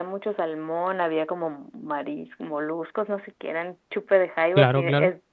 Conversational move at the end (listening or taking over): listening